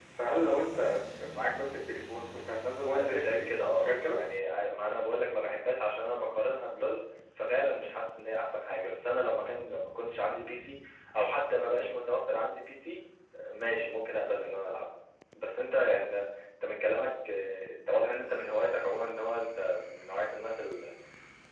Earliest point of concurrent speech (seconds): 2.9 s

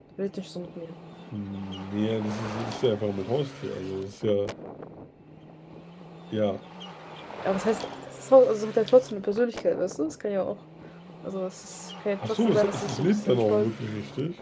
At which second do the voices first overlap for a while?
12.2 s

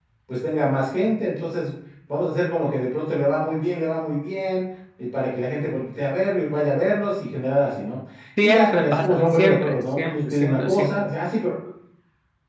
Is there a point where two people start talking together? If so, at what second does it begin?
8.4 s

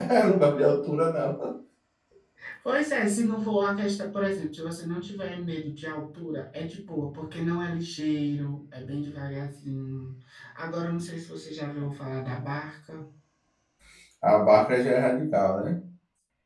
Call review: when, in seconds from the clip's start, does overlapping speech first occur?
none

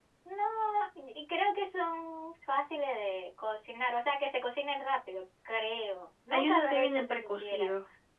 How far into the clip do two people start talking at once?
6.3 s

